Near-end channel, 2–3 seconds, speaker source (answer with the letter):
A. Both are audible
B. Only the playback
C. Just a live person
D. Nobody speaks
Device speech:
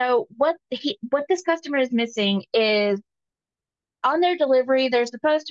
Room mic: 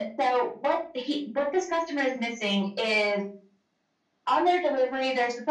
B